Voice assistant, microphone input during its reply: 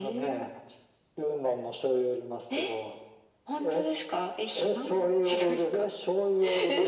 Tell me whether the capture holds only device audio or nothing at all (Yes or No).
Yes